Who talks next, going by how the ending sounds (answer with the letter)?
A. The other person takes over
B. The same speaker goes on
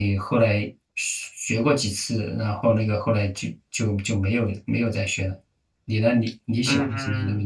A